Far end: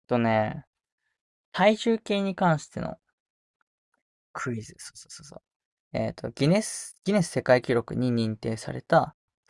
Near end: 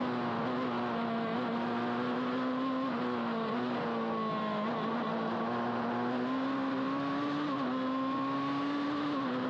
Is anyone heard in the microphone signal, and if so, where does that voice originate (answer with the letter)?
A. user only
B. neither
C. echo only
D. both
B